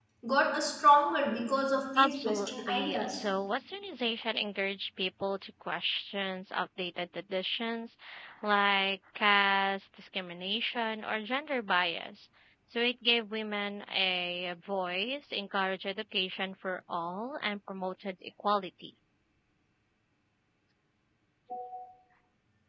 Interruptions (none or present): present